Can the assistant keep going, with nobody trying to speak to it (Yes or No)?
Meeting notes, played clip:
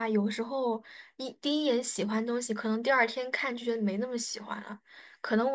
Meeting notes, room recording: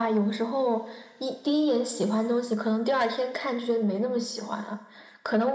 Yes